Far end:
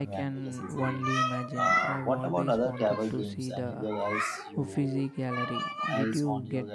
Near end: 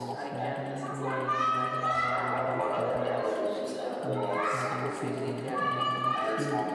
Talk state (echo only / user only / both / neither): both